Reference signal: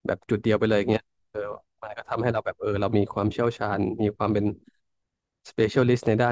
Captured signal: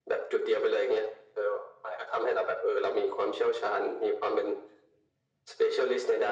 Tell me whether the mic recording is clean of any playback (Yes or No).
No